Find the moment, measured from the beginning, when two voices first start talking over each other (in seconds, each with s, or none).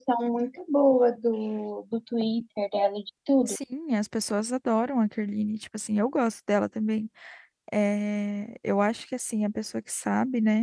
none